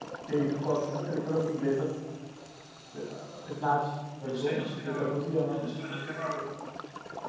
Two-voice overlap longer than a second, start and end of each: 4.2-5.7

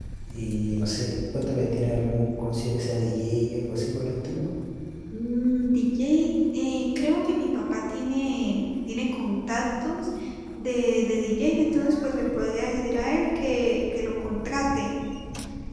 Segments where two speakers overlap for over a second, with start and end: none

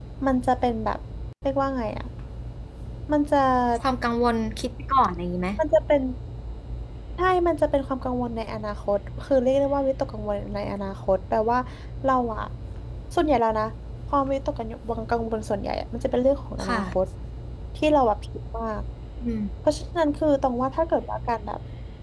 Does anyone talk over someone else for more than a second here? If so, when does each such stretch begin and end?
none

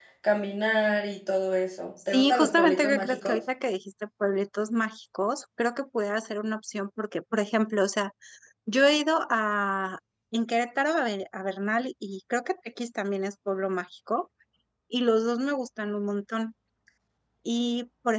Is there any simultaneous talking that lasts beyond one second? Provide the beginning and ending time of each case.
2.1-3.4

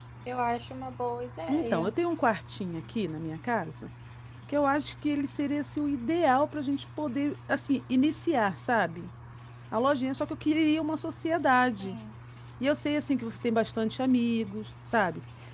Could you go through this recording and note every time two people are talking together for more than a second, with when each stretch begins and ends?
none

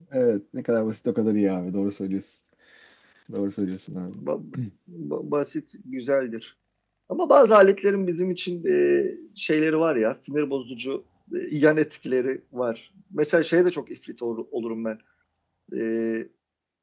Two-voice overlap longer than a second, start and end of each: none

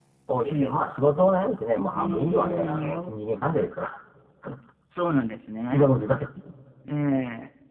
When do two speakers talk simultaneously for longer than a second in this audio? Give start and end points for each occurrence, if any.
1.8-3.1

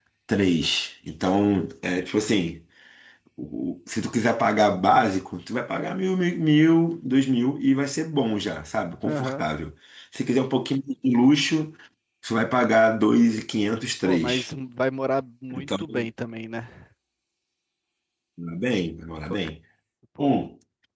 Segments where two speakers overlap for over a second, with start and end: none

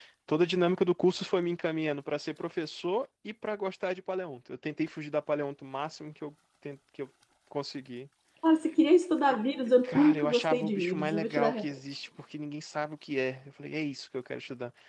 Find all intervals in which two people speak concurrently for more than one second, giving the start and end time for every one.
9.8-11.7

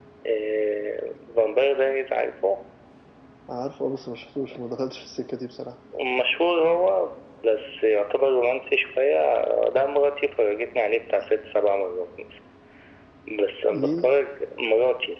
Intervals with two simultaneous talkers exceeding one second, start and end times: none

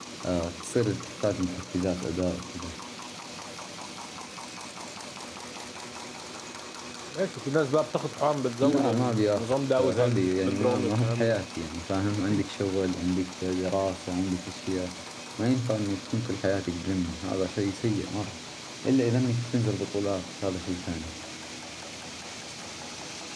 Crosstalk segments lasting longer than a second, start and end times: 8.6-11.4

